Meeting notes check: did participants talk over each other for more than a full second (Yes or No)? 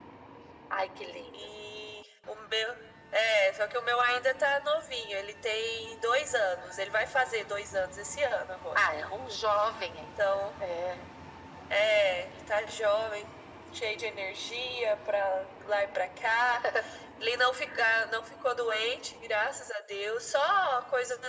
No